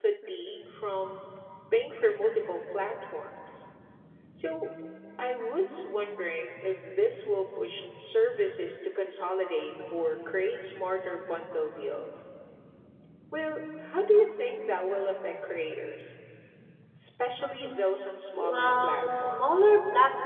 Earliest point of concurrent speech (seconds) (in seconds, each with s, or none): 18.4 s